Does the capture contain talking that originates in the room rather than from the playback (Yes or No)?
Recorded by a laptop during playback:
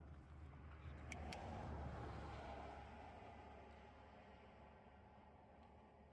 No